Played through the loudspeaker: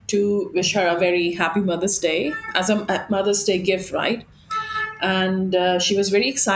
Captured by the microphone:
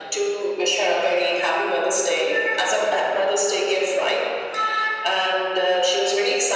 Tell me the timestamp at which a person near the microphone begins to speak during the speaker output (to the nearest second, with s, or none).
none